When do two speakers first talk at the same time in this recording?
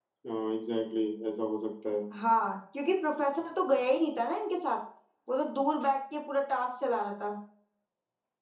none

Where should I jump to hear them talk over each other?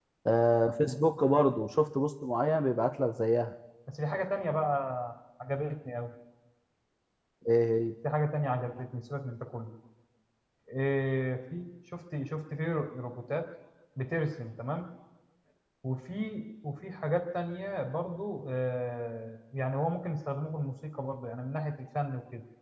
none

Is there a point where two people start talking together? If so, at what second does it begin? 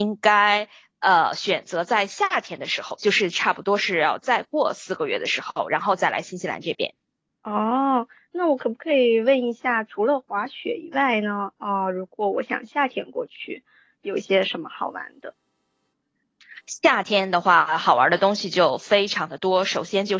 none

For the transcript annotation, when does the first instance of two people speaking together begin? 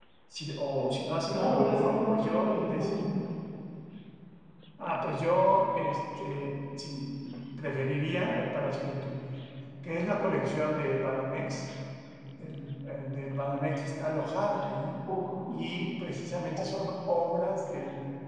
1 s

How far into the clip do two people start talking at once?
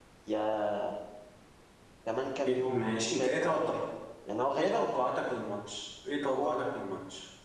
2 s

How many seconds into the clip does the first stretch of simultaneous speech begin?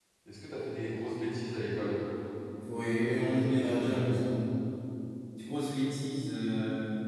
3 s

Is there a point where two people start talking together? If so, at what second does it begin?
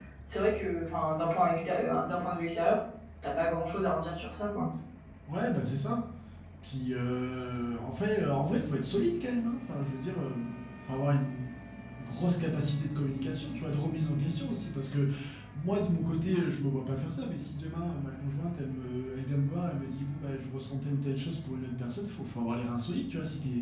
none

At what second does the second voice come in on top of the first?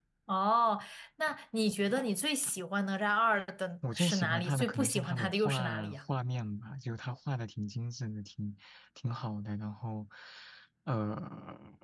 4 s

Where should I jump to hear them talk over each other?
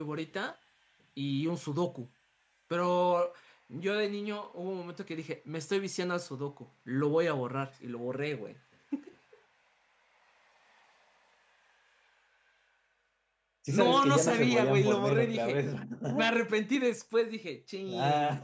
14 s

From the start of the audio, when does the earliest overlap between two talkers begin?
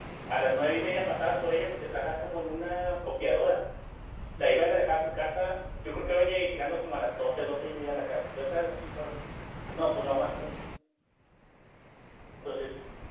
none

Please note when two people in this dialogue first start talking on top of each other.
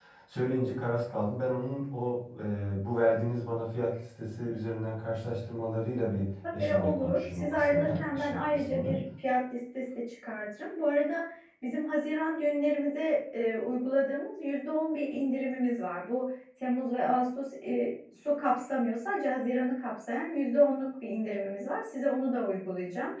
7 s

